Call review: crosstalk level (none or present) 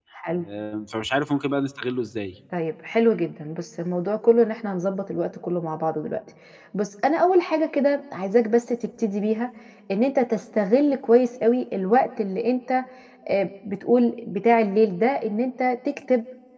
none